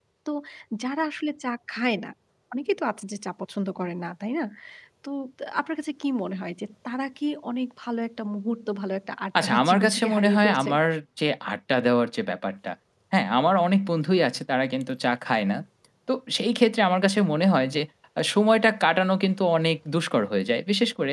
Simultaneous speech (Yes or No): Yes